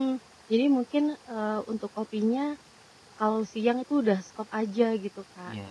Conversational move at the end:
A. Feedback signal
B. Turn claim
A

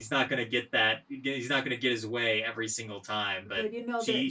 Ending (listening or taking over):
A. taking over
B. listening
A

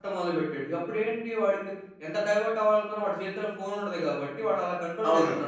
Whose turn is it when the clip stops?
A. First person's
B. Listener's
B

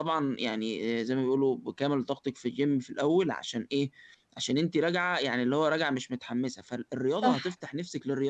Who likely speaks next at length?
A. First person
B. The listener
A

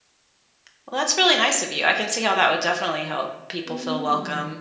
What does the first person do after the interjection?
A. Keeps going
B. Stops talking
B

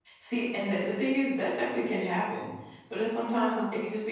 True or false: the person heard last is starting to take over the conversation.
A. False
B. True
A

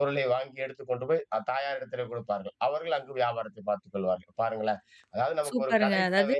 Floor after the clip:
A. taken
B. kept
A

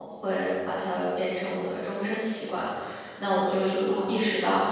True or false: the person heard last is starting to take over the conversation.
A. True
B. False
B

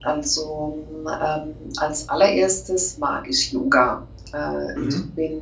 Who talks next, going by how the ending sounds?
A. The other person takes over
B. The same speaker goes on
B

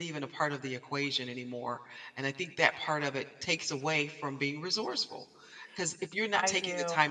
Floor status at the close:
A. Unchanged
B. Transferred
A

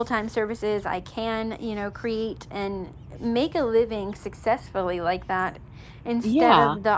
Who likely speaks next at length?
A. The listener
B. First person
B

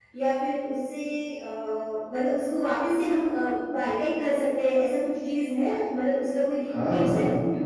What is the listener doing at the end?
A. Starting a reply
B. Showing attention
A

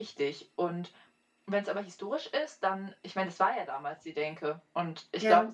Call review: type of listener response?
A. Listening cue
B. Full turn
A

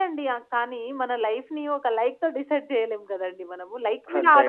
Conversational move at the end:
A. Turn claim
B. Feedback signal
B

